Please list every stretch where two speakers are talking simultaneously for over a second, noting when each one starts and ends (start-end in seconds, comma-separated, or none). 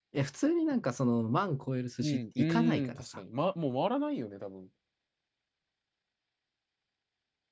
2.0-3.2